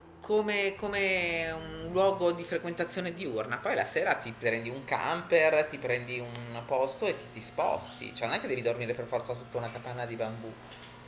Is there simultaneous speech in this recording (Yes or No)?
No